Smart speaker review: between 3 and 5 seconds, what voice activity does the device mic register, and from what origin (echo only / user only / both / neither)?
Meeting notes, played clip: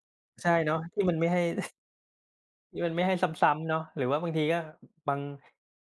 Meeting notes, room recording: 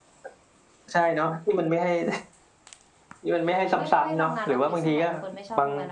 both